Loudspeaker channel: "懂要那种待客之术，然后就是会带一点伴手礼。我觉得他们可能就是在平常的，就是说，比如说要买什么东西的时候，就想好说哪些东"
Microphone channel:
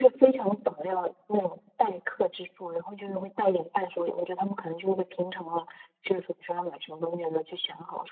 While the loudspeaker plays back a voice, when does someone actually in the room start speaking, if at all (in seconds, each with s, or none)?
none